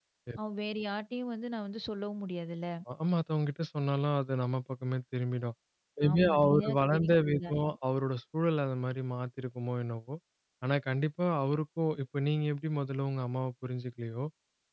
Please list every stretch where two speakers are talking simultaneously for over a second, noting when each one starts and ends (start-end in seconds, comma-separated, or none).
6.1-7.8